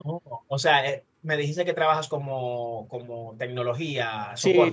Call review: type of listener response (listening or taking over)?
taking over